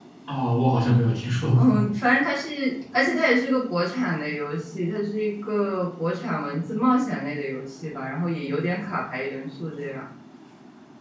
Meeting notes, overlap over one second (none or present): none